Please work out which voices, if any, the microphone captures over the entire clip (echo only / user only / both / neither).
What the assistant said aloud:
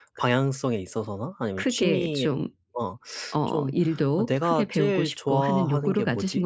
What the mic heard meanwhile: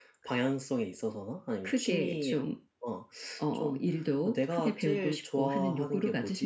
echo only